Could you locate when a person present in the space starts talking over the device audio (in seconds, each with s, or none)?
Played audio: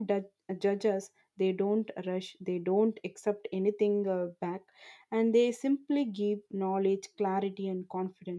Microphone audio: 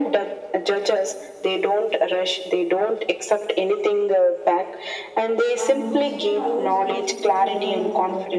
5.5 s